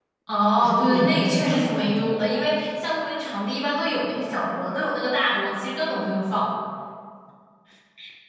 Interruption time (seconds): 0.6 s

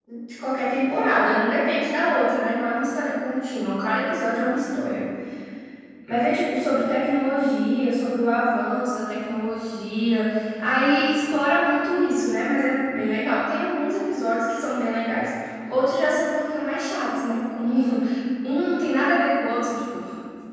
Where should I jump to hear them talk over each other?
none

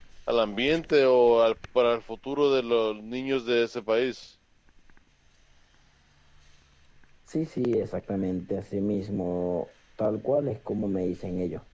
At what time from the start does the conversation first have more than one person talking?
none

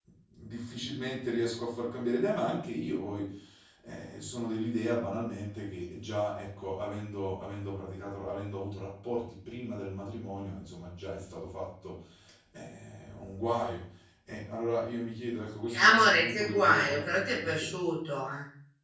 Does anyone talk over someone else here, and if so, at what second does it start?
15.7 s

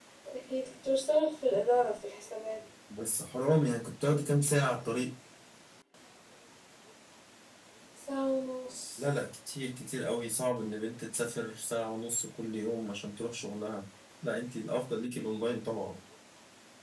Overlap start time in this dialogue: none

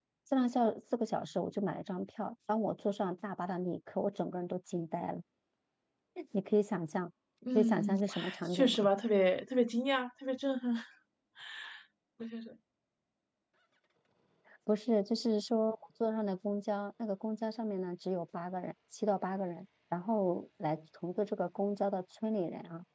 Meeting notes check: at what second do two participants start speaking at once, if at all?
7.5 s

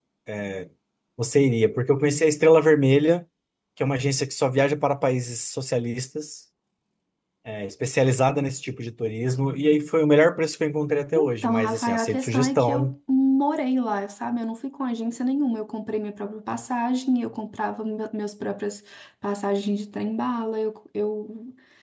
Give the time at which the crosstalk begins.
11.4 s

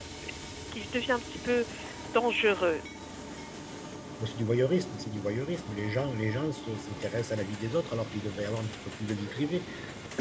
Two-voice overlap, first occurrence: none

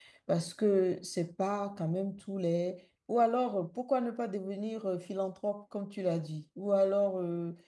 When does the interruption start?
none

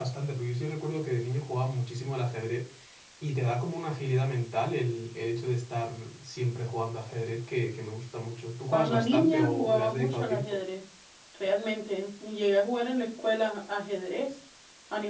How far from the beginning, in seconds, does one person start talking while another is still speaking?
8.7 s

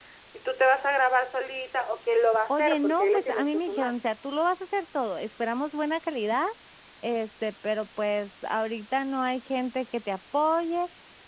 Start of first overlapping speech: 2.5 s

